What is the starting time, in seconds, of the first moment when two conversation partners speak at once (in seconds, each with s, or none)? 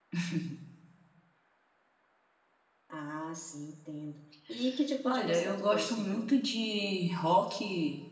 5.0 s